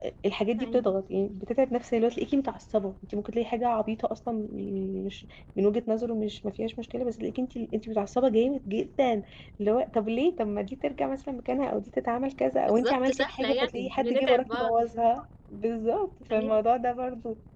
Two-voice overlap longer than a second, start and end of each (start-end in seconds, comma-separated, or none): 12.6-14.7